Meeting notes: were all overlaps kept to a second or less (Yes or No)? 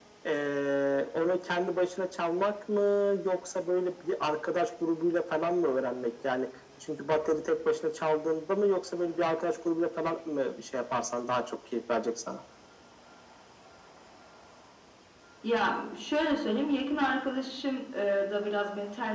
Yes